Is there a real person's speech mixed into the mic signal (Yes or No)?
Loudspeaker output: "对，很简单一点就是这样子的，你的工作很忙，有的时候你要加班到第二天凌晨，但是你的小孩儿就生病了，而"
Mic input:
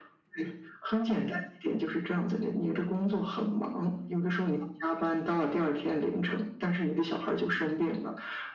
No